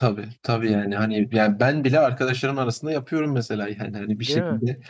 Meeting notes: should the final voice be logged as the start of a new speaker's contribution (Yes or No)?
No